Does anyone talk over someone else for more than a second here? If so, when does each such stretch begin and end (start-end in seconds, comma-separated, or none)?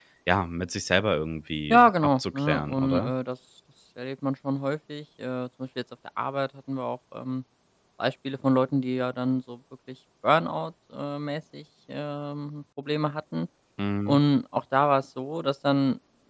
1.7-3.1